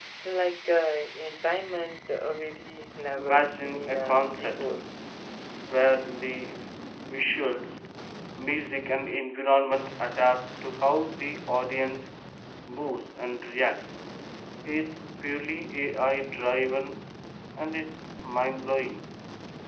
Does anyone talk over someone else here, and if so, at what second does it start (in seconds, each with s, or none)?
3.2 s